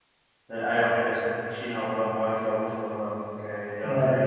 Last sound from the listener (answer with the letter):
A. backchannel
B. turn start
A